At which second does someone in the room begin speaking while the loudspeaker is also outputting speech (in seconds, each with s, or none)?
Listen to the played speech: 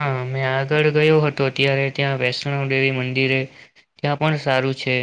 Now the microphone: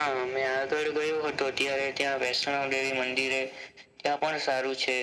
none